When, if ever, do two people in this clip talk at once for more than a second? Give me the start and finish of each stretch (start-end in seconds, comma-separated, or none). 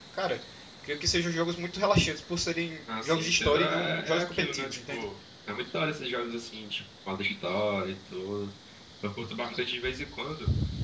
3.0-5.0